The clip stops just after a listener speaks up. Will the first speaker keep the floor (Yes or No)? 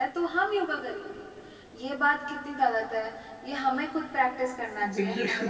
Yes